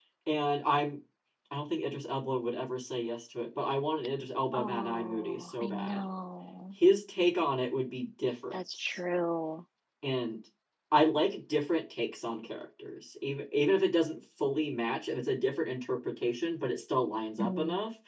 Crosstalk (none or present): present